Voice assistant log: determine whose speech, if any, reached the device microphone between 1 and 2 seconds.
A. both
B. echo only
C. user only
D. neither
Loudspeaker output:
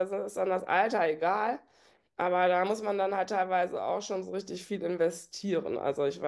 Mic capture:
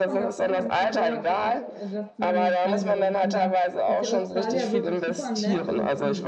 A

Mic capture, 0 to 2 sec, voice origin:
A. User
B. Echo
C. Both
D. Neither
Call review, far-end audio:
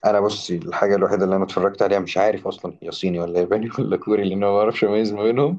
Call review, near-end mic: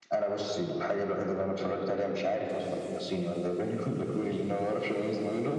B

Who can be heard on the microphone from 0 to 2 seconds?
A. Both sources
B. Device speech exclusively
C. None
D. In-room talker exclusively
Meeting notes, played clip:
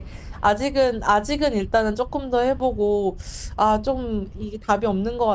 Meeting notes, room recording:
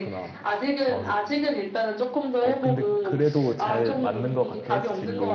A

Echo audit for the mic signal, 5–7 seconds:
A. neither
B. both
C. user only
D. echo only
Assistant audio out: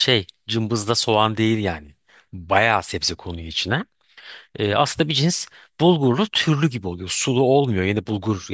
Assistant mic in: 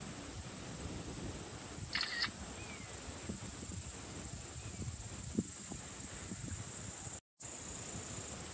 A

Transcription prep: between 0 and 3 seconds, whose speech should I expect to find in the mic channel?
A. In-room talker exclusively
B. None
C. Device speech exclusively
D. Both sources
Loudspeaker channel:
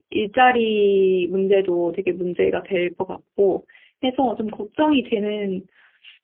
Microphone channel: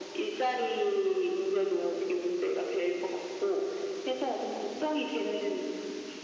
C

